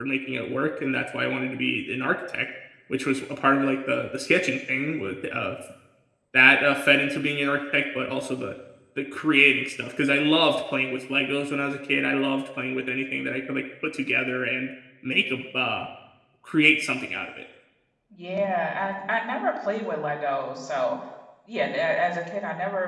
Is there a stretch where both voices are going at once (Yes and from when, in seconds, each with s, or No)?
No